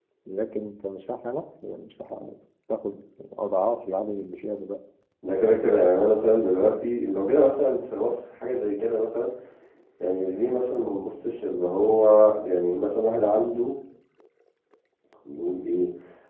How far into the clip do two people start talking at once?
none

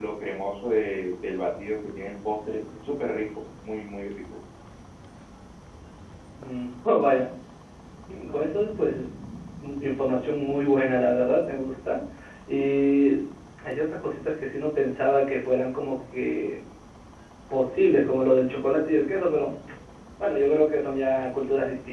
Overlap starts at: none

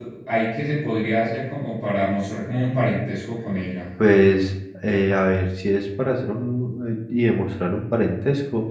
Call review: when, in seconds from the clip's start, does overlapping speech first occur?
none

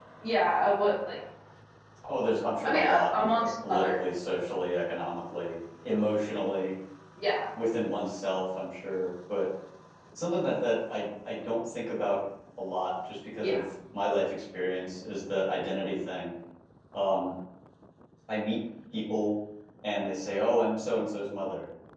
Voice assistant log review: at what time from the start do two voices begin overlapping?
2.6 s

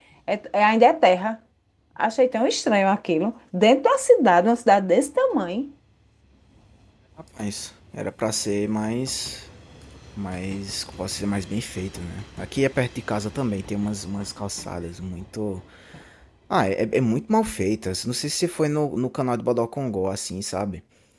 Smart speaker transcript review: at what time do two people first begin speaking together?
none

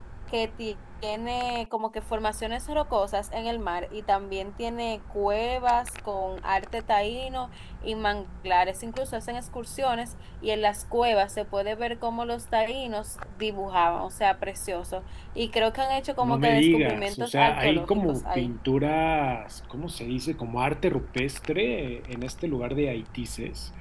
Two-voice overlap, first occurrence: 16.2 s

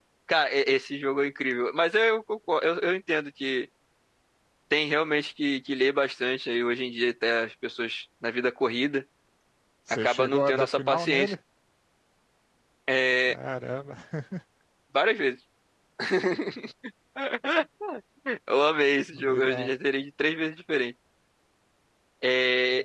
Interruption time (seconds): 9.9 s

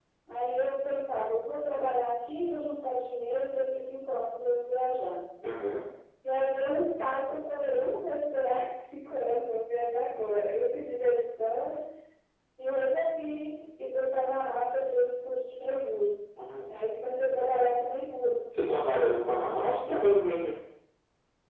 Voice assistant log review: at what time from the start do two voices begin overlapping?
none

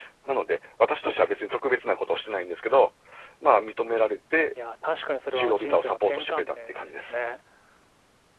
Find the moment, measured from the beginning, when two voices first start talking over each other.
5.3 s

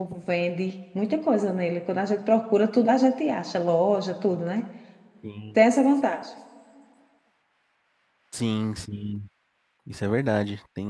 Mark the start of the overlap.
none

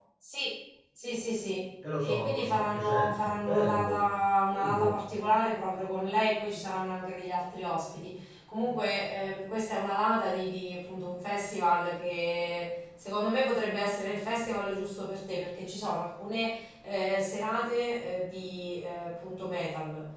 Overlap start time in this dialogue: 1.8 s

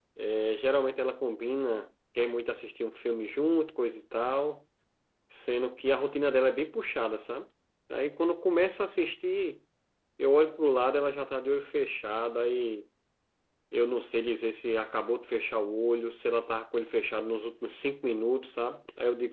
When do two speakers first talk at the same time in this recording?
none

